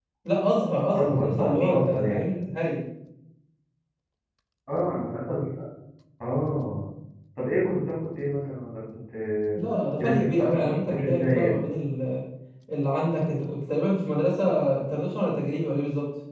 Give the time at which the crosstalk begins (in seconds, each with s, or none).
0.9 s